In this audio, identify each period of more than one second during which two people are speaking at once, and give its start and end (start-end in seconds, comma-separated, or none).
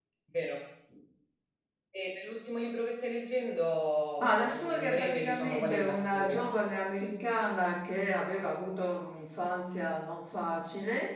4.2-6.5